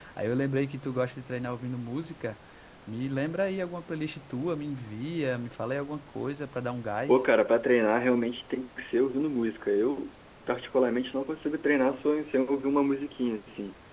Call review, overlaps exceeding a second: none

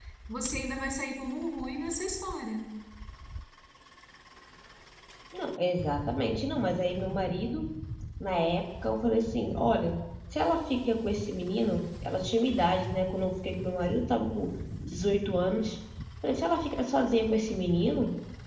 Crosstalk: none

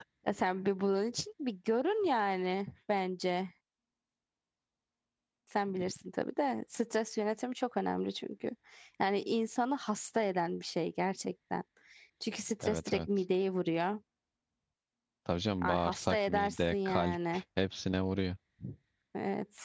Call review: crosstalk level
present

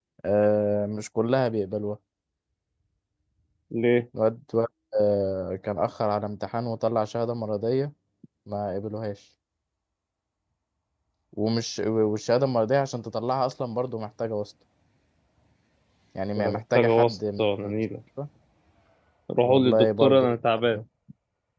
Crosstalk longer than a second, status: present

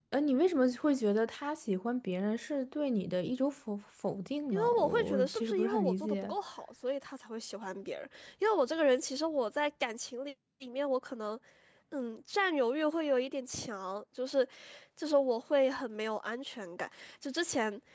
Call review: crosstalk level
present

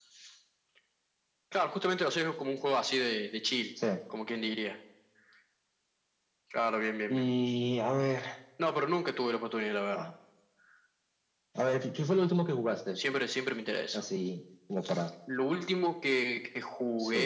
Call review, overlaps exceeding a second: none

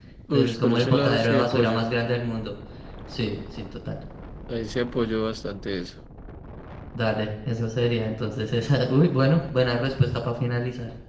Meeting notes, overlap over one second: present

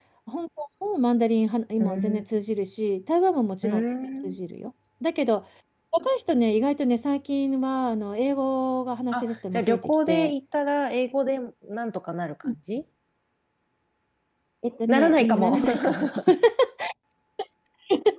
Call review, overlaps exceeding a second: present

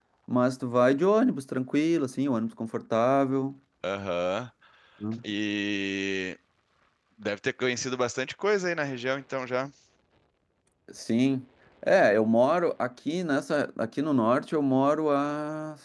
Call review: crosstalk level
none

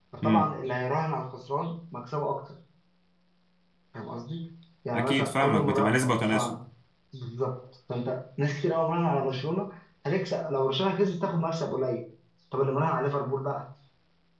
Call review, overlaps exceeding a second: present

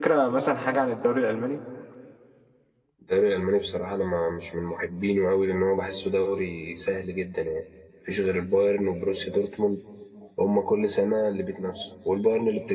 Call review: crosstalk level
none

